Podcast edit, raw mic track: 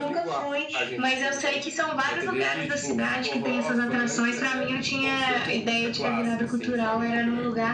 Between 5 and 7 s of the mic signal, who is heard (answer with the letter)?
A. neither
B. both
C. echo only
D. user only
C